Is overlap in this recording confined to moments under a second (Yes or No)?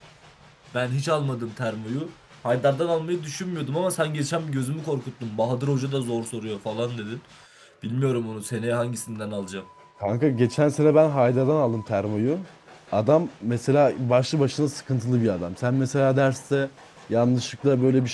Yes